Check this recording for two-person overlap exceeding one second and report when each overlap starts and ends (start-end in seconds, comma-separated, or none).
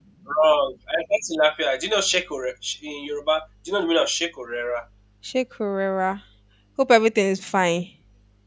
none